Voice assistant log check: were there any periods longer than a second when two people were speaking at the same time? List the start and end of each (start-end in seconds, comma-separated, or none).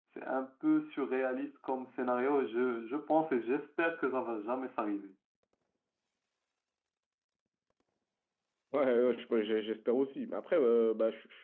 none